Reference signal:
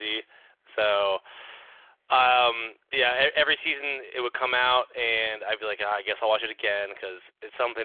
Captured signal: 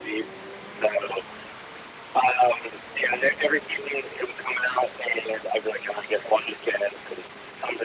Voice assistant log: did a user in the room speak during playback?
No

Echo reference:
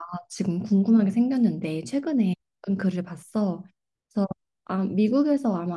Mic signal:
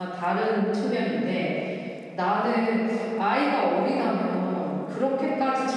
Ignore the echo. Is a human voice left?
Yes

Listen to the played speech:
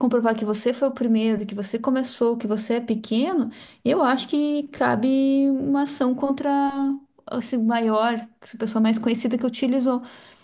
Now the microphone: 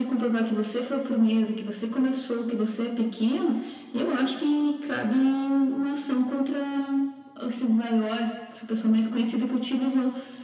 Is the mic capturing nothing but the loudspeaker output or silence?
Yes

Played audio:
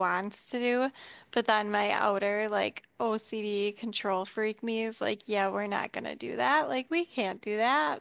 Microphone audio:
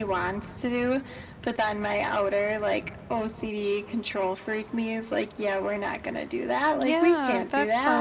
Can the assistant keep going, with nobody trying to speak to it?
No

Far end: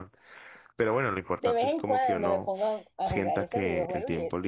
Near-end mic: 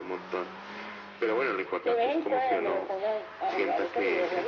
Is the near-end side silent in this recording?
Yes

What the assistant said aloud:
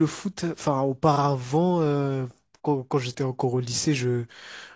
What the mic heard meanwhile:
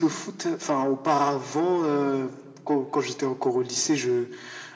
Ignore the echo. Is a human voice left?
No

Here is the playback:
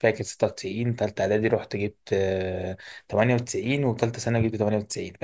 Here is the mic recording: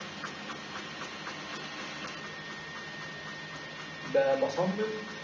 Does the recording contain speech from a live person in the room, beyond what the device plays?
Yes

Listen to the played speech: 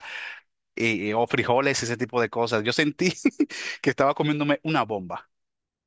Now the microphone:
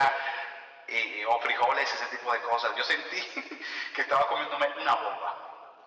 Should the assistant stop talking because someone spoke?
No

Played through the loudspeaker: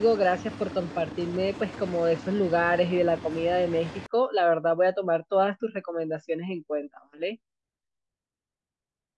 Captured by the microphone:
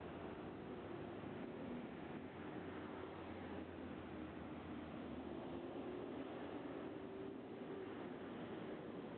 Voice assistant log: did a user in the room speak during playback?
No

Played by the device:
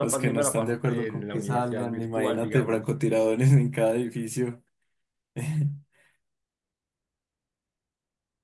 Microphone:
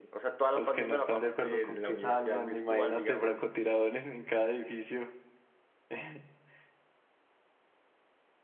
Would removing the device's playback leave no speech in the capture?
Yes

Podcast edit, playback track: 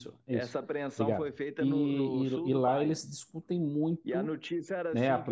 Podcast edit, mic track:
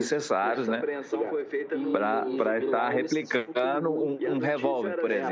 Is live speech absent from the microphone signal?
No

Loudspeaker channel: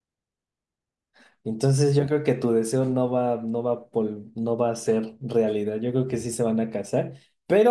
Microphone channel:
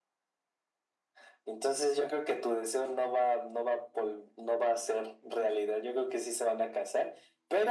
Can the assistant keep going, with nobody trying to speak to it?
Yes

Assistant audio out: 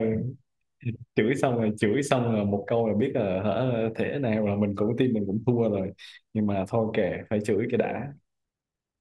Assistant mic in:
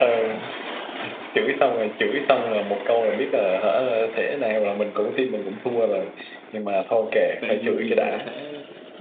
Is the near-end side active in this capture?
Yes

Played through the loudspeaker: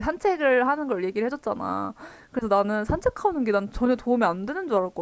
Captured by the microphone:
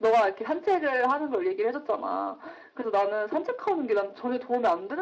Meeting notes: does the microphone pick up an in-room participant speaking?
No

